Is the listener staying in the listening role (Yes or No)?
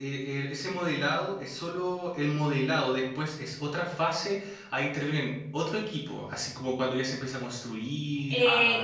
No